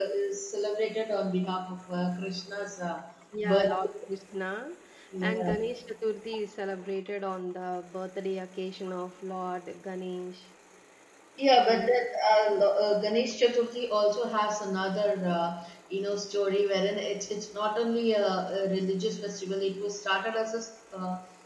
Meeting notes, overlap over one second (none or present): none